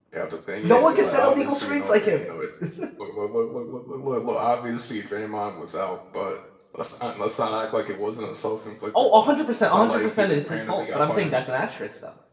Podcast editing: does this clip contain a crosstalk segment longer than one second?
Yes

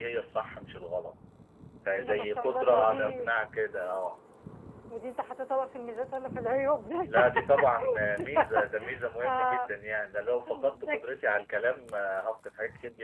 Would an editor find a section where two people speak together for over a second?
Yes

